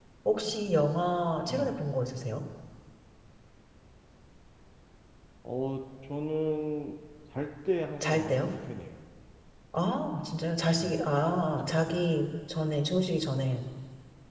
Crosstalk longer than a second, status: none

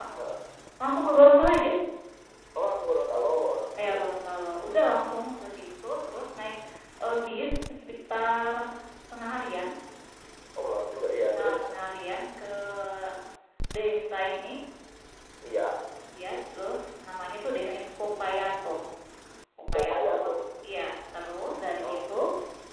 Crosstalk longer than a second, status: none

